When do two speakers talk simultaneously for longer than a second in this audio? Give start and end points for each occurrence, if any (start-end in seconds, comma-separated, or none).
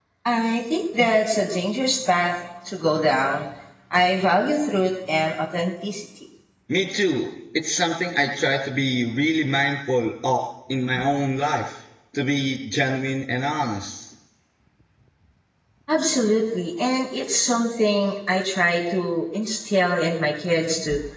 none